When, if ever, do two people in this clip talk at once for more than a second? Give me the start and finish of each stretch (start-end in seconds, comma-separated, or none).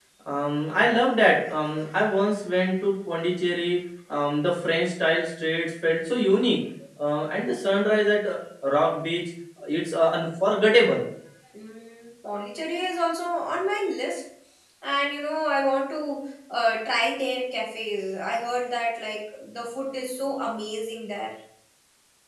none